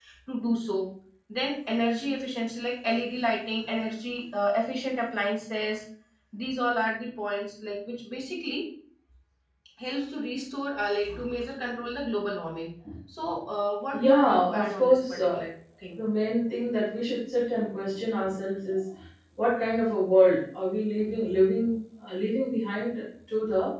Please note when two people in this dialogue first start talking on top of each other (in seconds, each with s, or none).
13.9 s